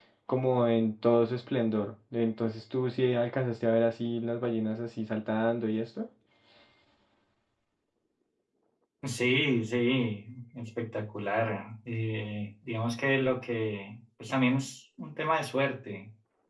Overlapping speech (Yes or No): No